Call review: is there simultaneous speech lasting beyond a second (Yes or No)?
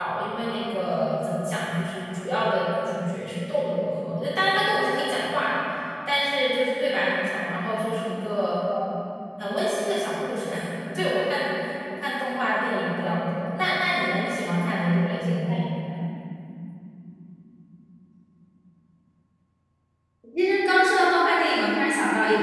No